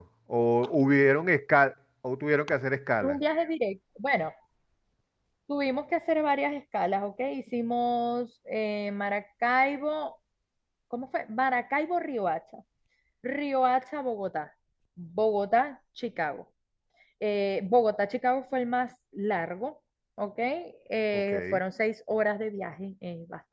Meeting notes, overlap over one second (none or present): none